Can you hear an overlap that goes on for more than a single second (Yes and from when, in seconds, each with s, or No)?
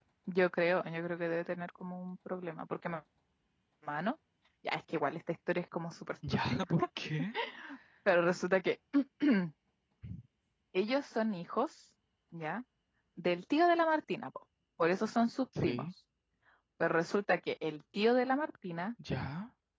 No